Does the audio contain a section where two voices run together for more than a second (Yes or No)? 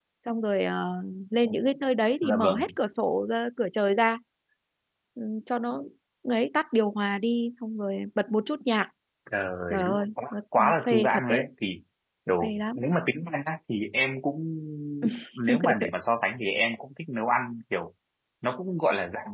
Yes